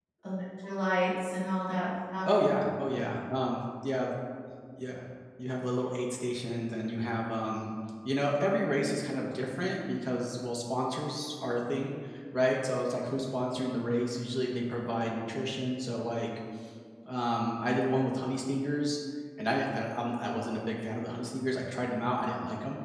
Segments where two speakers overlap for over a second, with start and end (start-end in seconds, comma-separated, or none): none